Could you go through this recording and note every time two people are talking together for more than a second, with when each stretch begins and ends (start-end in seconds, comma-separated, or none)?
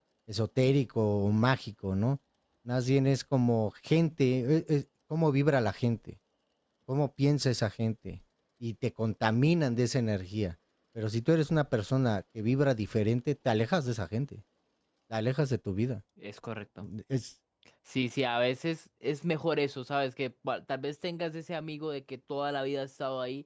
none